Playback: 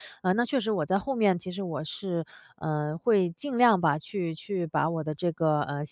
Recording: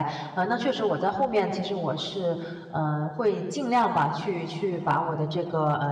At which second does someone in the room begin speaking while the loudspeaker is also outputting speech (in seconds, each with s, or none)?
none